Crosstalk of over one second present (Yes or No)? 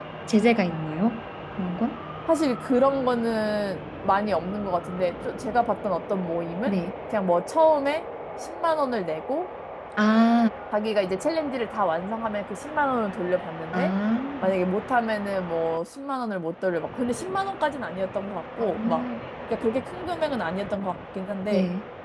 No